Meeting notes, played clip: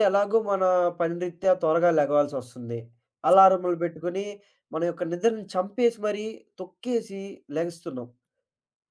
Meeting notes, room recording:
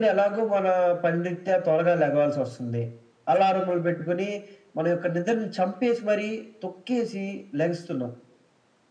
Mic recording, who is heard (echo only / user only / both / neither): echo only